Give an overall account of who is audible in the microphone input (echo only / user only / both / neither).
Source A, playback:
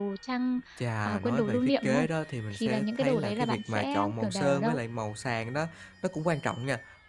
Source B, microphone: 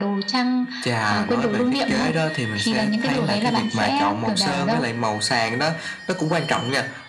echo only